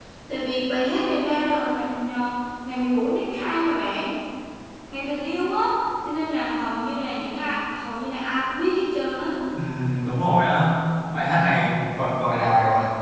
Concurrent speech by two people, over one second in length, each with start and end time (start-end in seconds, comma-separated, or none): none